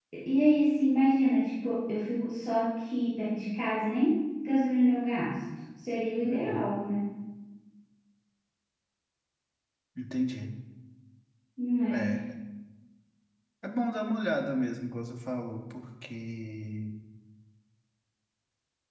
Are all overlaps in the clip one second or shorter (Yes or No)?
Yes